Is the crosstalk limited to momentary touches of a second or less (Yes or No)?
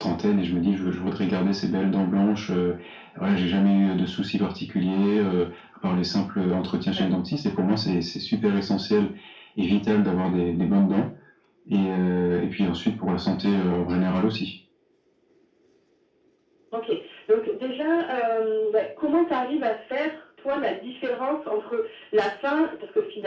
Yes